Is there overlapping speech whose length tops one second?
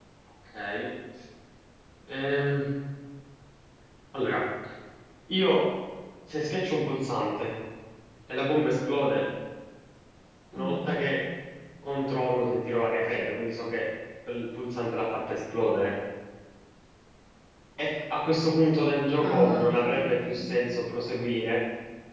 Yes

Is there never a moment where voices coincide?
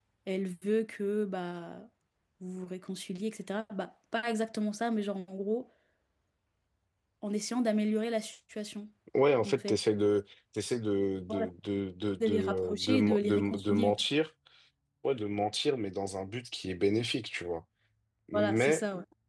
No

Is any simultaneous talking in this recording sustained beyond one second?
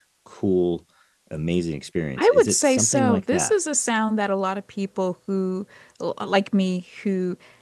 Yes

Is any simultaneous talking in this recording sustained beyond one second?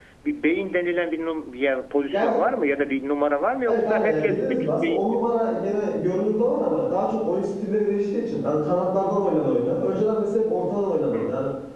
Yes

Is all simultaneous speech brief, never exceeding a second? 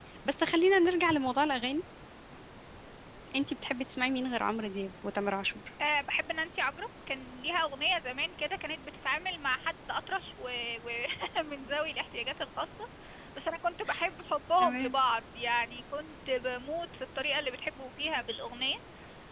Yes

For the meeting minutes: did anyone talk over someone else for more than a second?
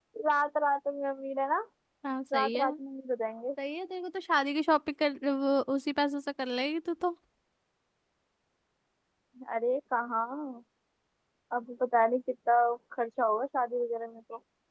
No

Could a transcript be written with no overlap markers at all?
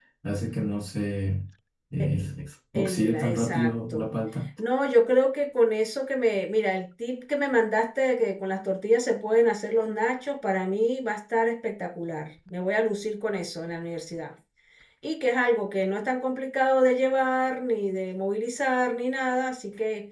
No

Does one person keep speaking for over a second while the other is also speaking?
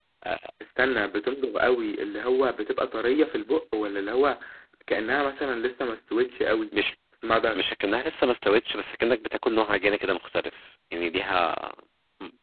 No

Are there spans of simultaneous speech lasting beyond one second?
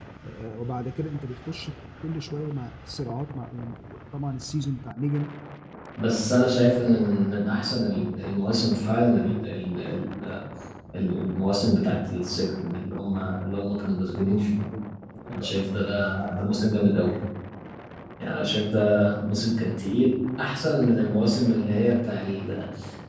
No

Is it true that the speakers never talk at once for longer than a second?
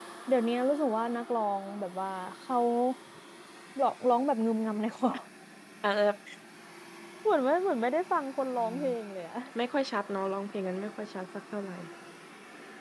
Yes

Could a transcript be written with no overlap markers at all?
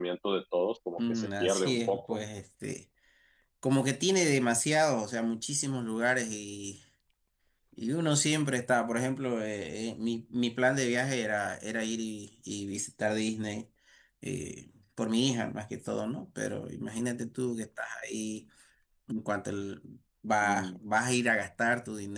No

